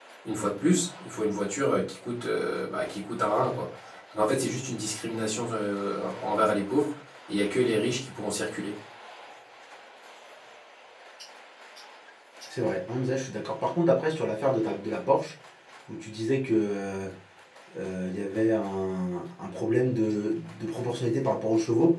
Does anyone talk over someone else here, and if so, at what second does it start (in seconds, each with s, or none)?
none